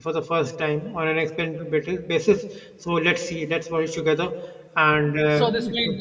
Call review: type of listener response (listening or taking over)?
taking over